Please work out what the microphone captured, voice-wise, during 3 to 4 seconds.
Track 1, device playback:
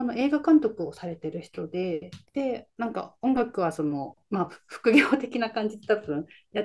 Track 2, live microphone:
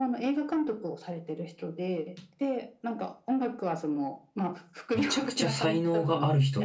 echo only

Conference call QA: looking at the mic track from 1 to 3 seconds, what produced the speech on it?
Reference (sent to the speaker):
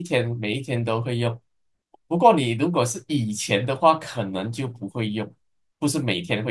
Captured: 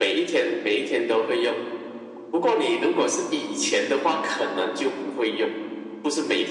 echo only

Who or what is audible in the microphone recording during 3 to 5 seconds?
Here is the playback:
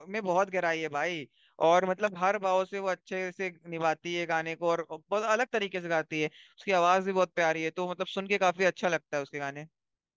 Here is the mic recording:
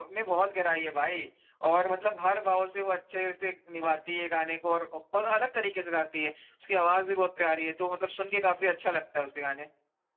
echo only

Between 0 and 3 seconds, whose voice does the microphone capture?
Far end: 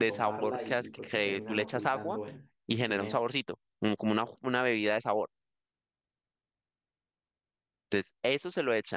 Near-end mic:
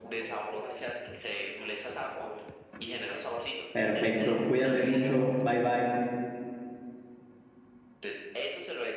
echo only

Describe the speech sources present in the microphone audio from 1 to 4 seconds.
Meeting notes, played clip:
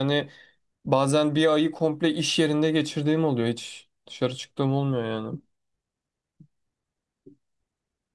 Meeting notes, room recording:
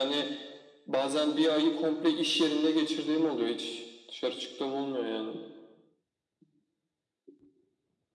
echo only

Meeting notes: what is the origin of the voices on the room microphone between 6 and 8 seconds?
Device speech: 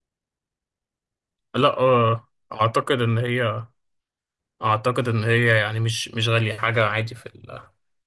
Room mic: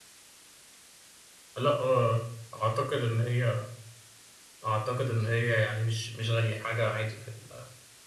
echo only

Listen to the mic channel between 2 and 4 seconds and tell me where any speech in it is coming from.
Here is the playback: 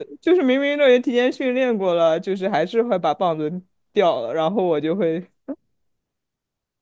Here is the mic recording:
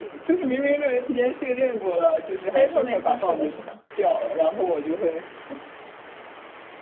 both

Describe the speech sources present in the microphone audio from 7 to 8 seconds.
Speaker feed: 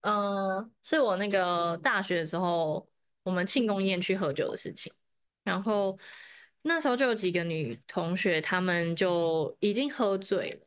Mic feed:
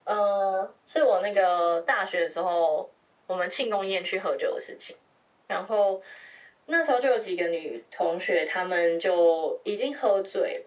echo only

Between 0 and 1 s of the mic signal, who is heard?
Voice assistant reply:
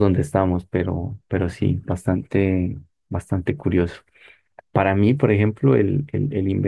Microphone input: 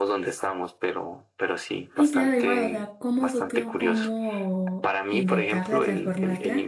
echo only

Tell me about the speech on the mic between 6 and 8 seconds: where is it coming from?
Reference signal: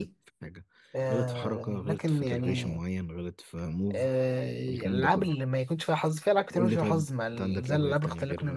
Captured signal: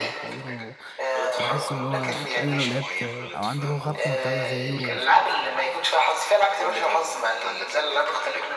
echo only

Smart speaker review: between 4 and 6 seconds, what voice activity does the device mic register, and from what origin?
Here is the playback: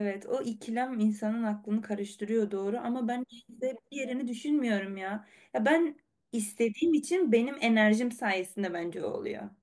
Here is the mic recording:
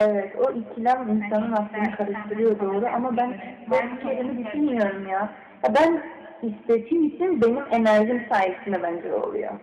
both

